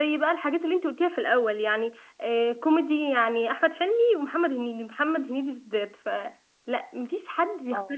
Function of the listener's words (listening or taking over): listening